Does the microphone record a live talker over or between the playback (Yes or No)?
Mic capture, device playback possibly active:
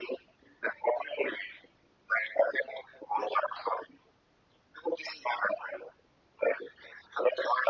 No